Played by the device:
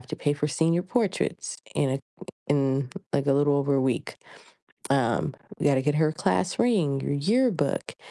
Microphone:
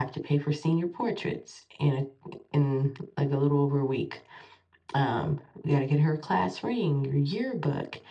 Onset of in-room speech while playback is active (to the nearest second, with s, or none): none